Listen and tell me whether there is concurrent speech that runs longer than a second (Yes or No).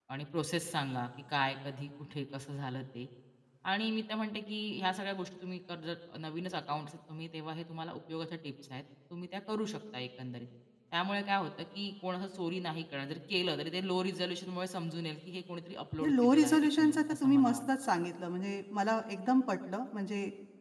Yes